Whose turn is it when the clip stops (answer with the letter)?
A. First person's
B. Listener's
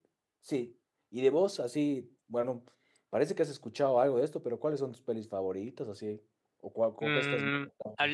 B